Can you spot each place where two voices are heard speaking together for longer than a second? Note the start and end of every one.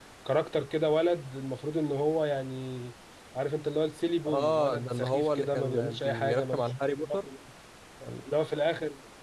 4.3-6.6

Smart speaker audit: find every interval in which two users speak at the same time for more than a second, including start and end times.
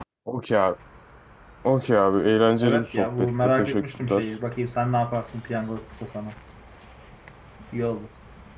2.6-4.2

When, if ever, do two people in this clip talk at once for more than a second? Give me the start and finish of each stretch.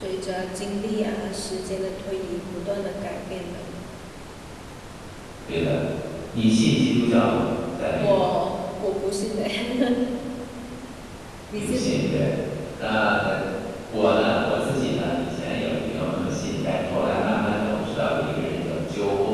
none

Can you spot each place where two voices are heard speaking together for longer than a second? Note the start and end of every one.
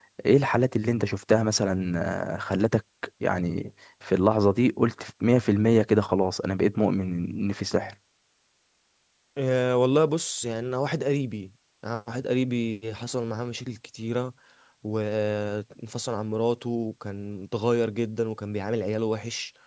none

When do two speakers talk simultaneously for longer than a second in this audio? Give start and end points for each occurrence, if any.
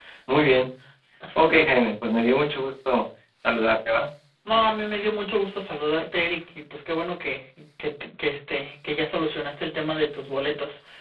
none

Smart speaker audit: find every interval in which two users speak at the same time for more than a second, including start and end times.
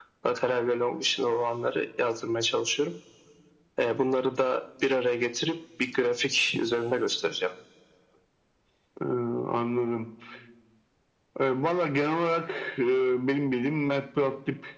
none

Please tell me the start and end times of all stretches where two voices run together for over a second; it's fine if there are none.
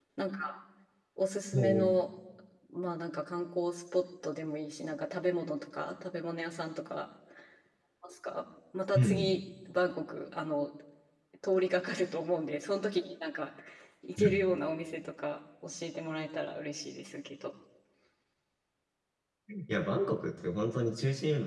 none

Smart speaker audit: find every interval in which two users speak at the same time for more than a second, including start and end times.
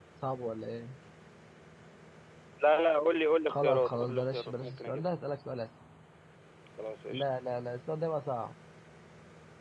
3.5-5.1

